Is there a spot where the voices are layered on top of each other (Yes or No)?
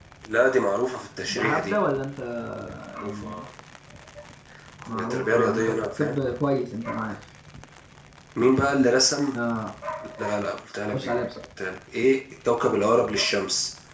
Yes